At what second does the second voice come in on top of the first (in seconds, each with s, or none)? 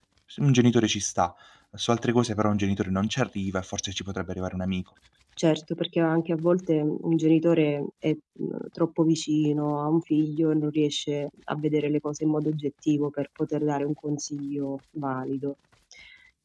none